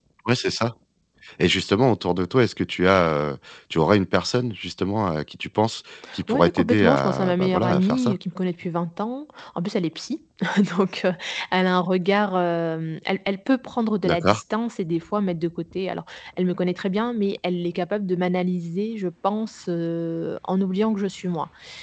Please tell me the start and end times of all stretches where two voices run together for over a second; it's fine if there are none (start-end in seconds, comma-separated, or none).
6.3-8.2